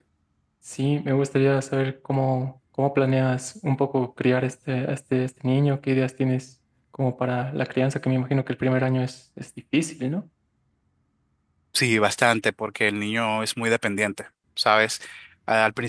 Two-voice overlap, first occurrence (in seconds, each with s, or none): none